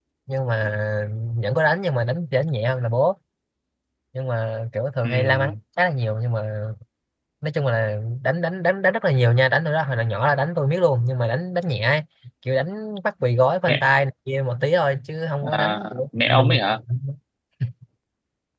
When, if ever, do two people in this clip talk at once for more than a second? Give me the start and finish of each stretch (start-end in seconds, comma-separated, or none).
15.4-16.8